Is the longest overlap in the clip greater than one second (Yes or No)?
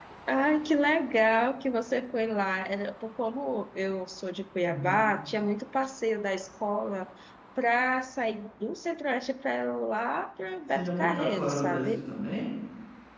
Yes